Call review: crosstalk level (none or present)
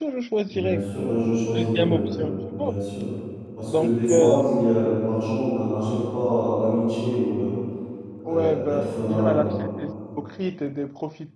present